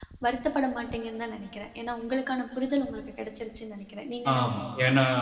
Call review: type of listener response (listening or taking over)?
taking over